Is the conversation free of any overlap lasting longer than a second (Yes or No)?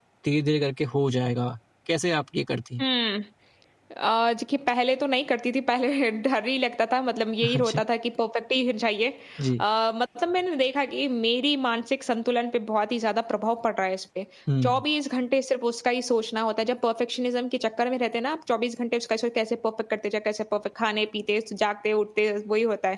Yes